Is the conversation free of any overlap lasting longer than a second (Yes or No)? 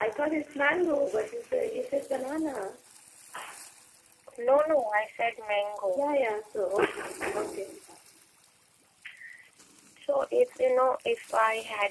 Yes